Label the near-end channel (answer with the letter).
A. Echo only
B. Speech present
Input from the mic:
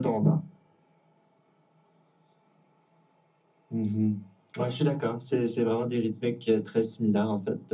A